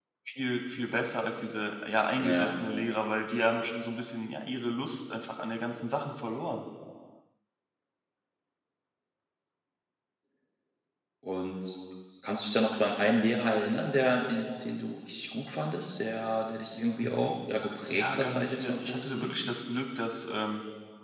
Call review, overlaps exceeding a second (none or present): present